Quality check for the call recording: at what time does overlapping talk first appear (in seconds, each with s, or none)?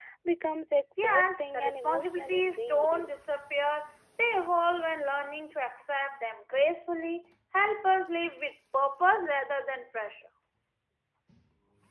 1.0 s